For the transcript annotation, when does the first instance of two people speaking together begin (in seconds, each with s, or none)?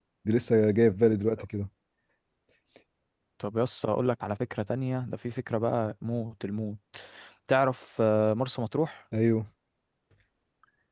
none